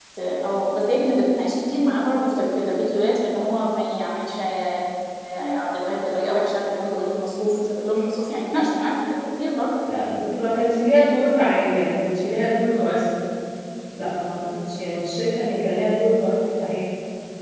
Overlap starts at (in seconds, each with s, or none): none